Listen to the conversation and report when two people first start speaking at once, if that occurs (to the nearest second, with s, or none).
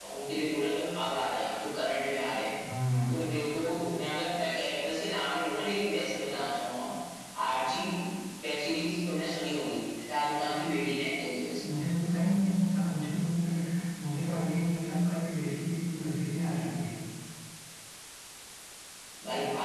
none